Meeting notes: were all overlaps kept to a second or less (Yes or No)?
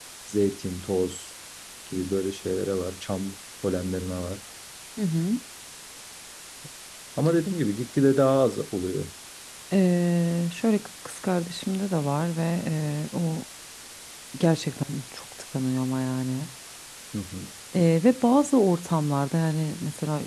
Yes